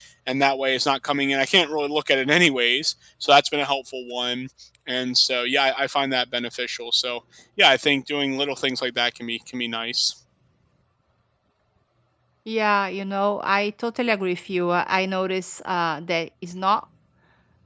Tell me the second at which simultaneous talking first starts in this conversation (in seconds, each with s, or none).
none